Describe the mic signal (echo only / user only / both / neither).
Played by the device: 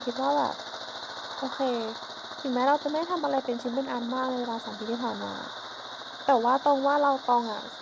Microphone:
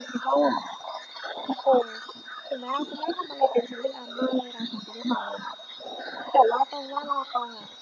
echo only